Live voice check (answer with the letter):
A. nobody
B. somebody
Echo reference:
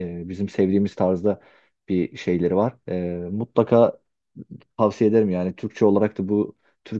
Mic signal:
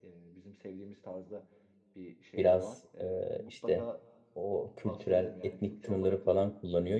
B